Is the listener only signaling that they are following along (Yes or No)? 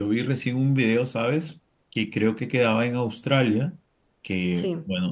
Yes